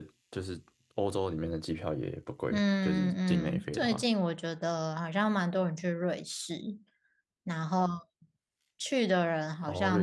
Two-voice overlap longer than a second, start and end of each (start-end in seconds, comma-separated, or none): 2.5-4.0